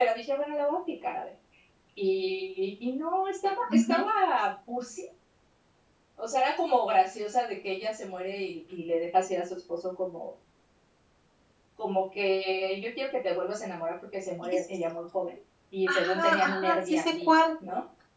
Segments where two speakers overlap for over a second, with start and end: 15.9-17.3

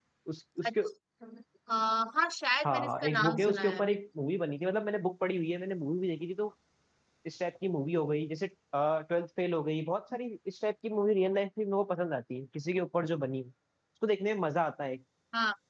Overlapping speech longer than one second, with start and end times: 2.6-3.9

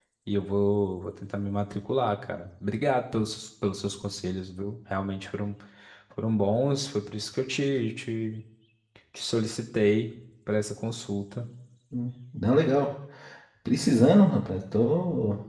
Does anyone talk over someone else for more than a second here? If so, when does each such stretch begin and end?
none

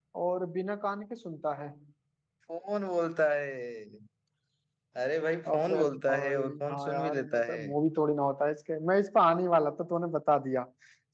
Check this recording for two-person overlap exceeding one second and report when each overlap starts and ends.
5.5-7.7

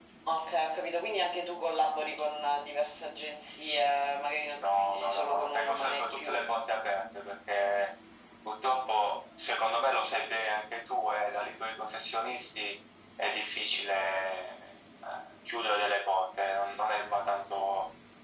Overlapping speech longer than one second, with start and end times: 4.5-6.5

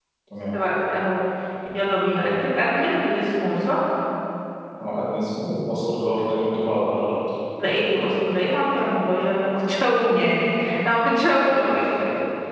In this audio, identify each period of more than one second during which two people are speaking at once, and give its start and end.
none

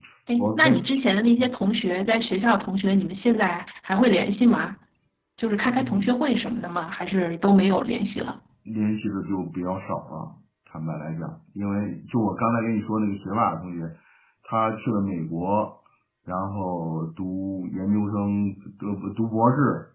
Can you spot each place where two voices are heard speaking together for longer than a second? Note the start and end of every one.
none

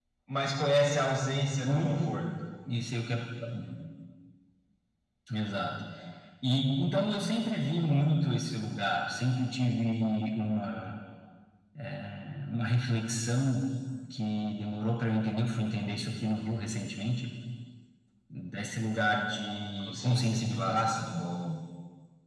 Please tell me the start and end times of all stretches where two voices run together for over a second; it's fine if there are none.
19.8-21.1

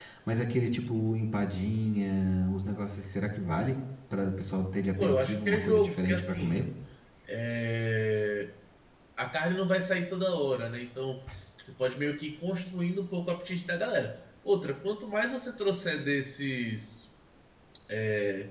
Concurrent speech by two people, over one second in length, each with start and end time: 5.0-6.6

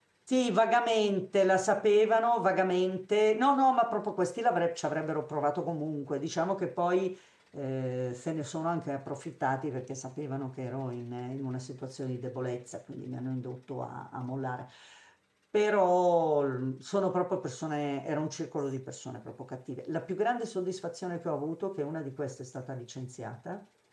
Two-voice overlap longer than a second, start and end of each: none

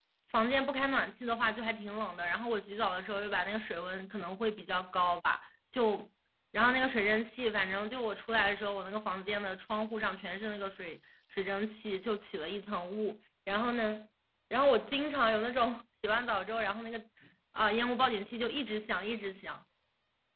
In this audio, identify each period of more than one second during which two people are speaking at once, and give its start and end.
none

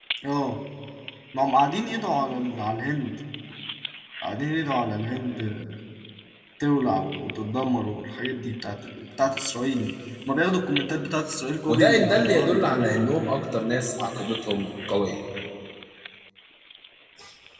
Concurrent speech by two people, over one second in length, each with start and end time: 11.7-13.1

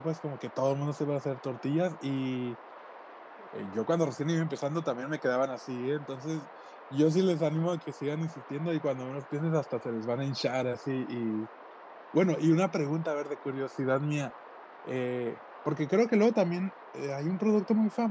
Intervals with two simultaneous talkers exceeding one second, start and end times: none

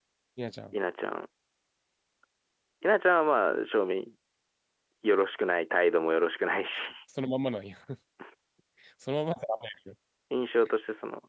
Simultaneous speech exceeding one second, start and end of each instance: none

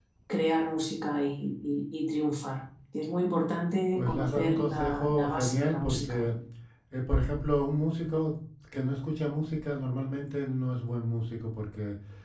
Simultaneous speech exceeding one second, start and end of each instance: 3.9-6.2

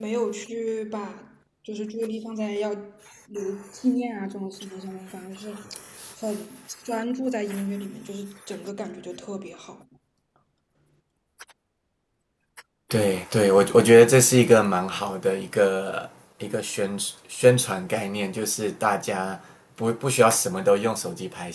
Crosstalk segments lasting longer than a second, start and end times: none

